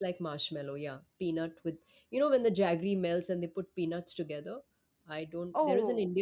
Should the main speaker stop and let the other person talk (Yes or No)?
No